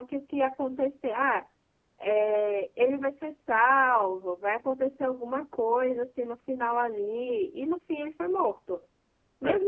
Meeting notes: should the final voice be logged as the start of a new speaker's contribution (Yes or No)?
No